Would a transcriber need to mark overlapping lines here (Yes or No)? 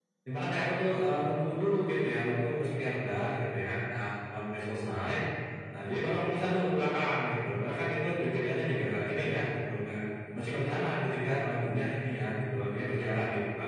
No